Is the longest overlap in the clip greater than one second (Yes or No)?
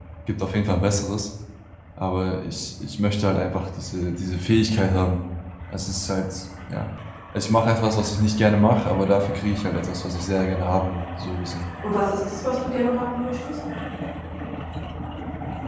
No